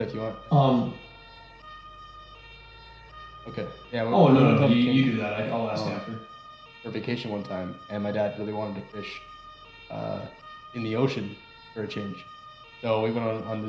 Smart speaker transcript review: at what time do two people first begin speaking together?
4 s

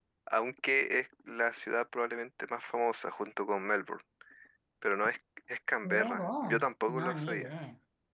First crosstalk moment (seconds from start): 6 s

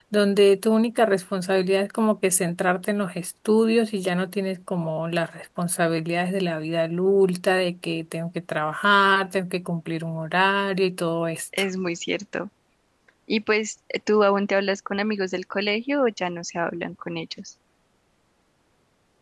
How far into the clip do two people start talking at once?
none

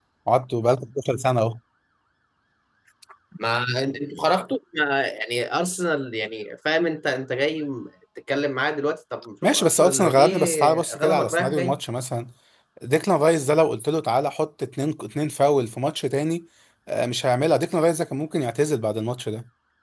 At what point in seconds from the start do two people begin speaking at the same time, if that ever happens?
9 s

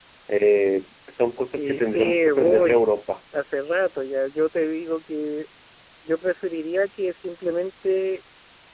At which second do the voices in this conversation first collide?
2 s

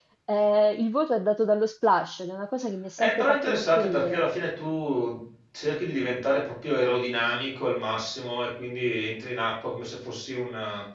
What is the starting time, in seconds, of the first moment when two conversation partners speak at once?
3 s

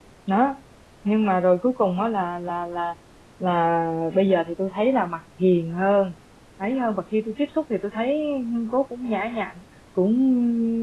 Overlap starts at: none

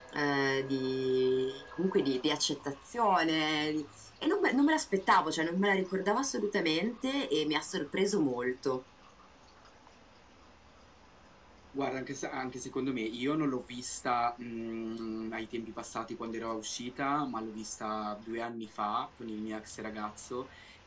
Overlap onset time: none

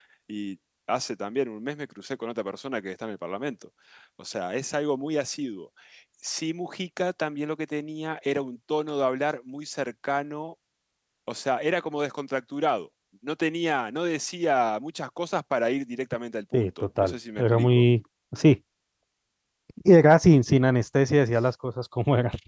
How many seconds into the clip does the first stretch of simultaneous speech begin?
17 s

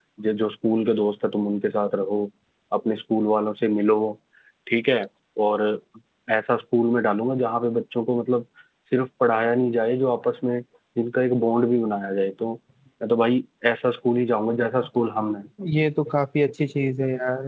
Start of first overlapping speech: none

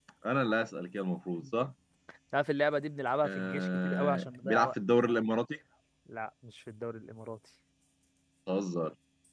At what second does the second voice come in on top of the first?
3 s

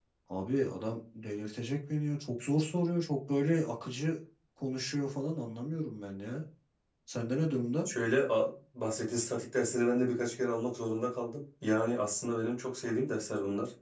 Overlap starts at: none

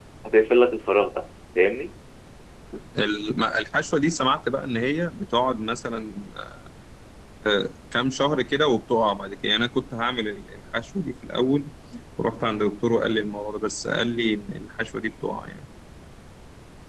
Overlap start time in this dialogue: none

